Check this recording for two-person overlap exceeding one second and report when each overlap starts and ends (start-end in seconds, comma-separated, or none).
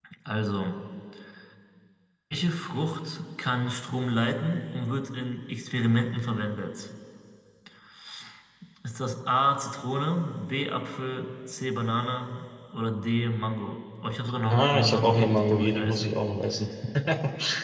14.5-16.1